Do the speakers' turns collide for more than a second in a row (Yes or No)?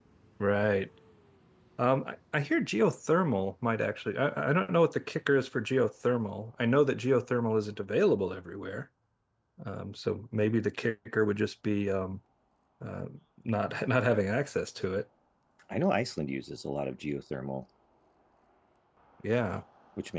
No